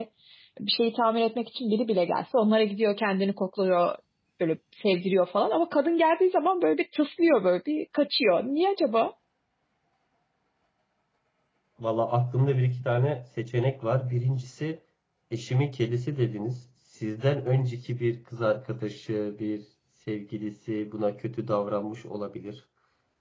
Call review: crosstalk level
none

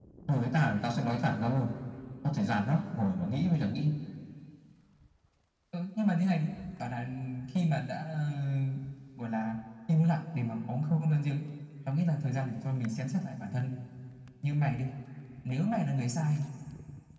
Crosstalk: none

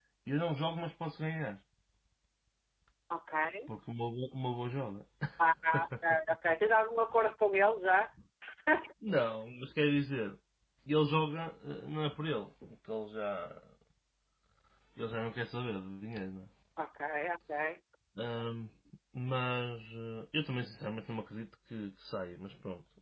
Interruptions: none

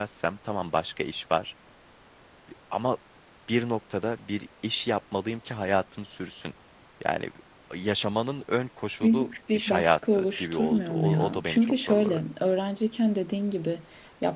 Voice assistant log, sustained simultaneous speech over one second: present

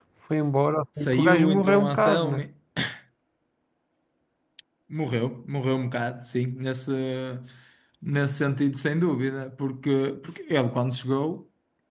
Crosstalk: present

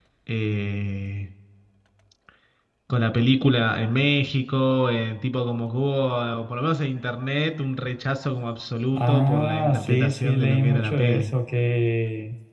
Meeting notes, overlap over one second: present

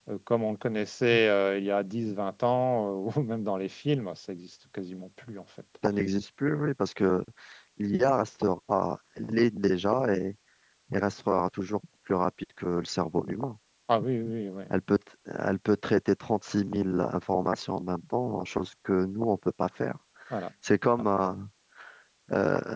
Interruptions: none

